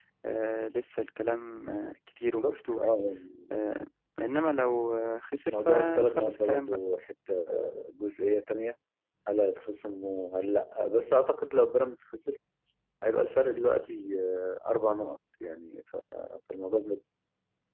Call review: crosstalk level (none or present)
present